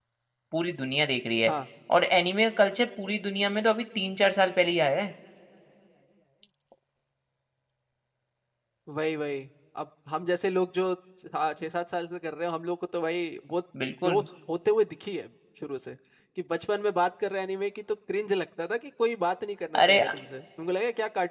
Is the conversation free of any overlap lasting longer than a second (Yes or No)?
Yes